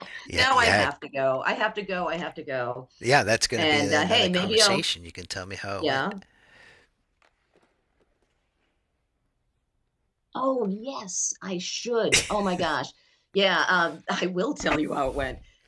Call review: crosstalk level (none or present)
present